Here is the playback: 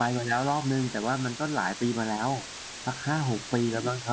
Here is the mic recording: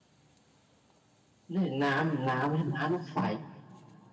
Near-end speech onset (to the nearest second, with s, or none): 2 s